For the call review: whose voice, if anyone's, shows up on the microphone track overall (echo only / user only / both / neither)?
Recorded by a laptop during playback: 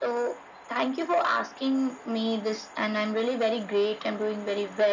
echo only